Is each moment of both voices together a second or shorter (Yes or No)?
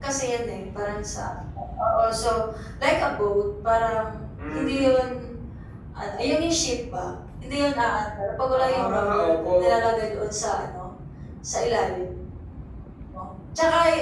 No